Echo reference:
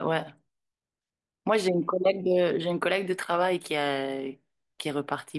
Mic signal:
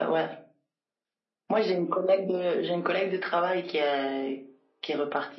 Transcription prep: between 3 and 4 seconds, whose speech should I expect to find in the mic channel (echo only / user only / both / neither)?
echo only